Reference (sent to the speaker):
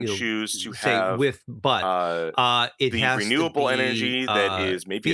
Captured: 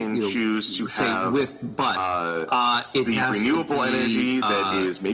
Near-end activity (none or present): none